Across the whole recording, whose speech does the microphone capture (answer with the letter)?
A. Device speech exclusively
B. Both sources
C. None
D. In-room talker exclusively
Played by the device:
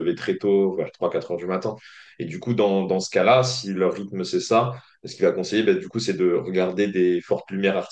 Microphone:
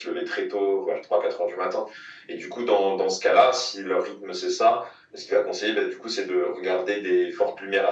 A